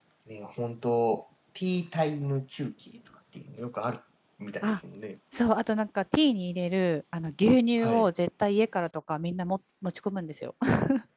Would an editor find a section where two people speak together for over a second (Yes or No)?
No